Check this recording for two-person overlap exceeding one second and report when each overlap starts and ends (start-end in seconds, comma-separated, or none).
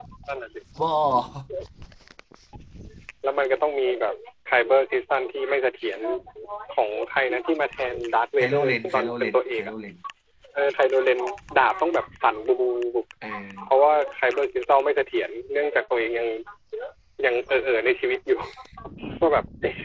8.4-9.7